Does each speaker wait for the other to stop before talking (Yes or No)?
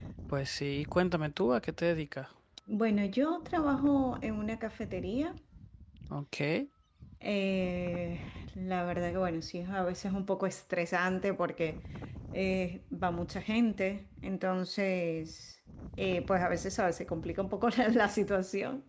Yes